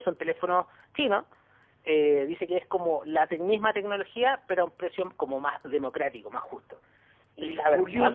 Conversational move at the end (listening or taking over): taking over